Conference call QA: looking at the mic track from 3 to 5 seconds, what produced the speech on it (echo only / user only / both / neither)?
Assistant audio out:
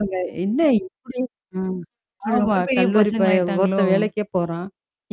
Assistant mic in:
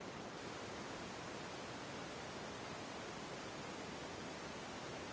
neither